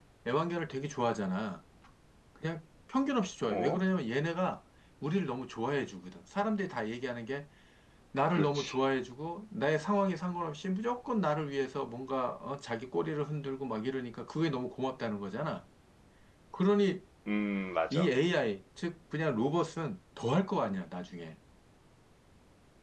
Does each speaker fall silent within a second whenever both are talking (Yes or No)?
Yes